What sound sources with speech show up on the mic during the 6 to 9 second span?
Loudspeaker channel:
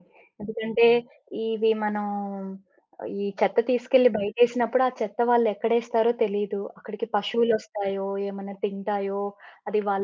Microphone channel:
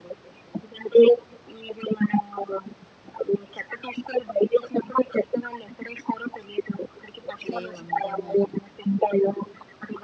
both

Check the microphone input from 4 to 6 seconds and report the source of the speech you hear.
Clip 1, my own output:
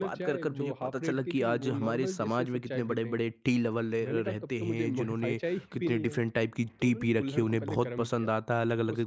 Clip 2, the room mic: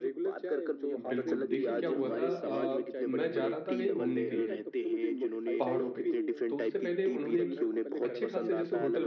both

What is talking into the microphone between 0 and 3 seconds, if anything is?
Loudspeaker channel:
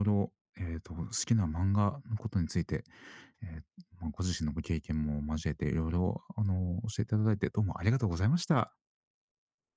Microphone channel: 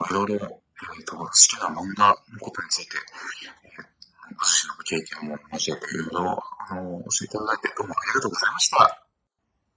echo only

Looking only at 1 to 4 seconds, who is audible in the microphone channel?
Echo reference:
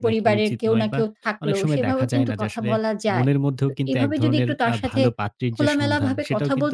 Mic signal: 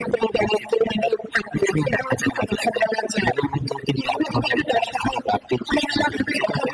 echo only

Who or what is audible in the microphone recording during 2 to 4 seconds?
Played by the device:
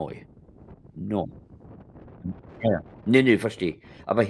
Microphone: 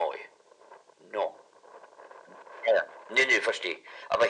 echo only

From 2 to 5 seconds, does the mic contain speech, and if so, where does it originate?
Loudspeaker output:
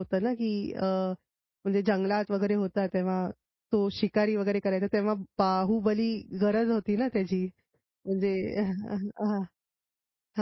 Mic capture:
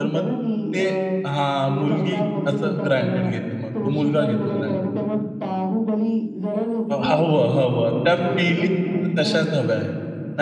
both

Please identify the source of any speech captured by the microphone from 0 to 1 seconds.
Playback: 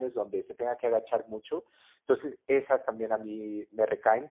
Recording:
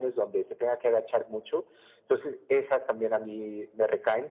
echo only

